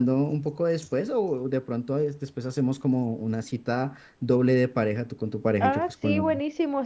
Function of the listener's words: taking over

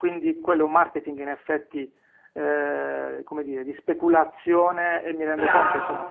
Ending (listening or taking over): listening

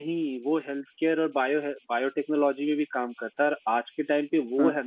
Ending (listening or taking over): listening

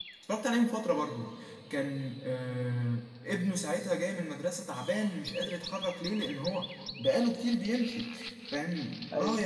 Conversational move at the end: listening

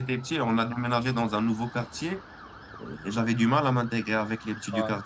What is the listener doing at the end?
listening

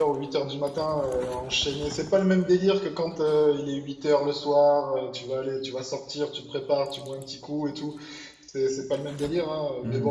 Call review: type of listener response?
listening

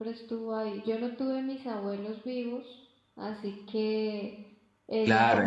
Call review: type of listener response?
taking over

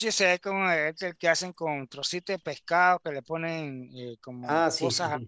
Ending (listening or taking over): taking over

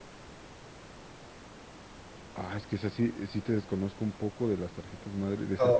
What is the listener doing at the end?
taking over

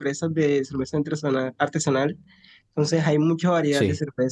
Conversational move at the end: listening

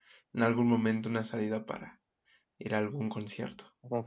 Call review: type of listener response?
taking over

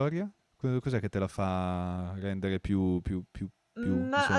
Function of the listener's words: taking over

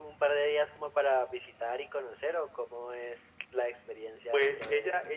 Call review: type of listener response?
taking over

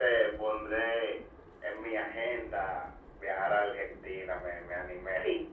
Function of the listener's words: taking over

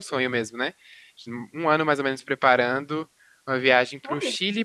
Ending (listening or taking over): listening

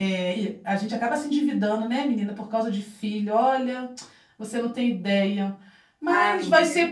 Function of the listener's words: listening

